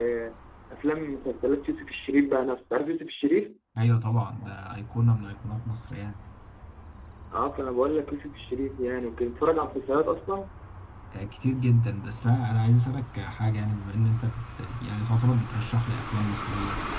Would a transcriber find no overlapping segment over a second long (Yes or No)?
Yes